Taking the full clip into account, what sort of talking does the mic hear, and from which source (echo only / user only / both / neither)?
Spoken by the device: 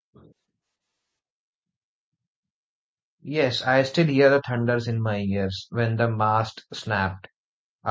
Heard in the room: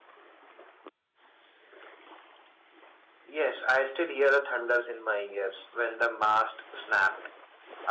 echo only